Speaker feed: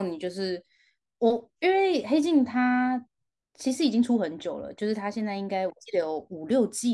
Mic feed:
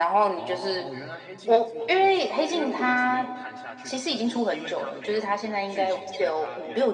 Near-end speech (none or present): present